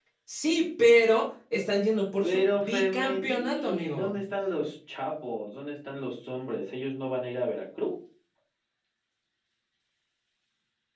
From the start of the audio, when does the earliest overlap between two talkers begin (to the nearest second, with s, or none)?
2 s